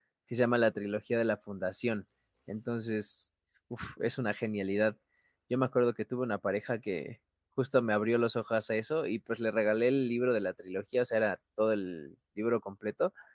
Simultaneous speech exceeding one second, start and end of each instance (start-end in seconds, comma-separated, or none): none